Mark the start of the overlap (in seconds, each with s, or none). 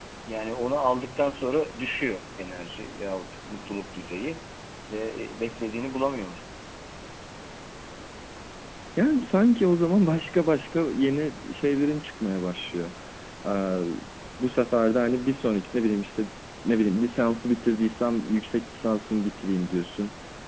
none